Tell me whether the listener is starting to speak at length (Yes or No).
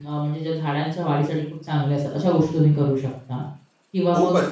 Yes